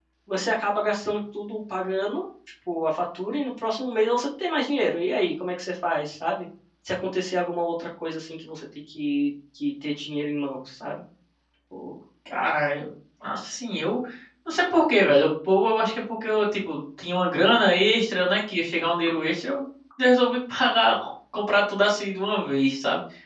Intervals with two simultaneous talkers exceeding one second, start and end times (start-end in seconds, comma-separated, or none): none